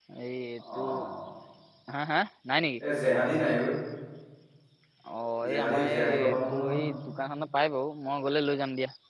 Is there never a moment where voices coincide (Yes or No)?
No